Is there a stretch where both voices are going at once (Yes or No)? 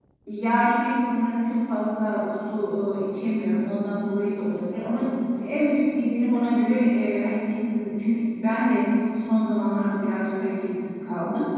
No